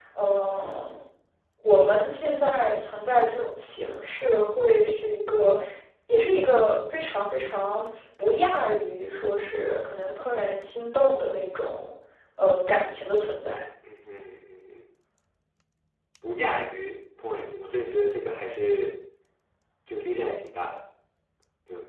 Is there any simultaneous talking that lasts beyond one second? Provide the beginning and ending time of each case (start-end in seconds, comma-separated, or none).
none